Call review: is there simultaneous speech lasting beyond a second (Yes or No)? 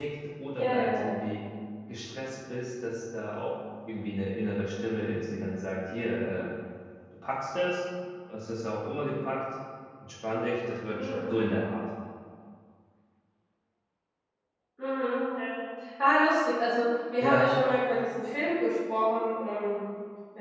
No